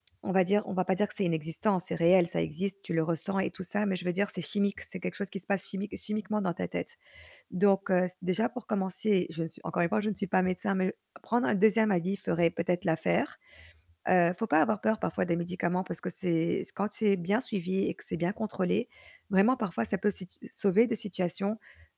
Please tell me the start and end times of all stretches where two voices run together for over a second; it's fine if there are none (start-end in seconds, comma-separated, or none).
none